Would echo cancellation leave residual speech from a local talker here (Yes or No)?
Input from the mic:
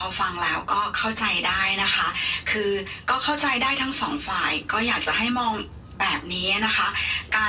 No